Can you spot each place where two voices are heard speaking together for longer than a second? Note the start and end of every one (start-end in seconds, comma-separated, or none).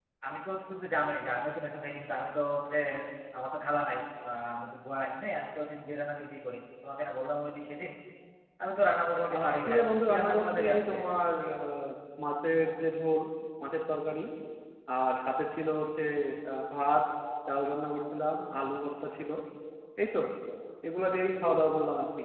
9.4-11.0